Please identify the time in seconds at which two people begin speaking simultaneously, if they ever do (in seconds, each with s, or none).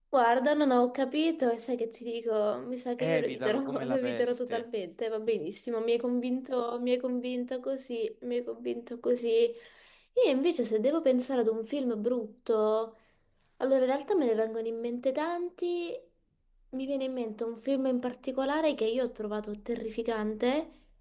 3.0 s